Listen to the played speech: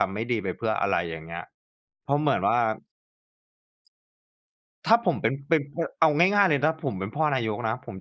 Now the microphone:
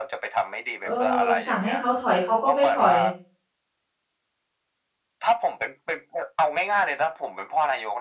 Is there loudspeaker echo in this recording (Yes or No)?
Yes